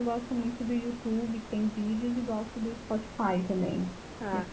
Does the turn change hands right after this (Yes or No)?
Yes